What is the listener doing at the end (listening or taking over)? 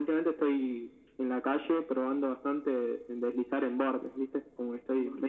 listening